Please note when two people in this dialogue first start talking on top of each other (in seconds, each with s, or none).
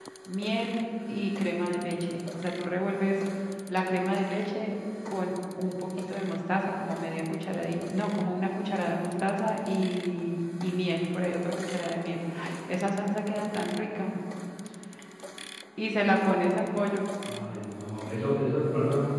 none